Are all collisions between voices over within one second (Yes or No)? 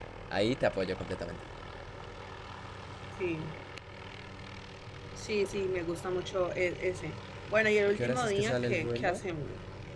No